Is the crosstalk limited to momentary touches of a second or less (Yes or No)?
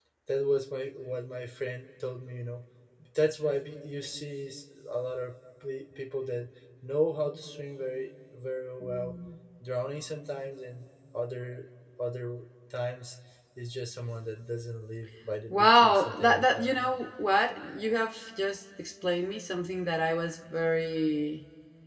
No